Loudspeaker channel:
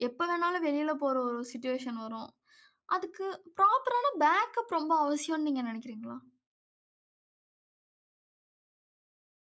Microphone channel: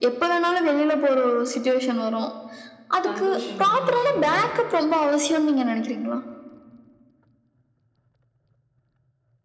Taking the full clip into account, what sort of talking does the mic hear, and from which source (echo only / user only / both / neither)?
both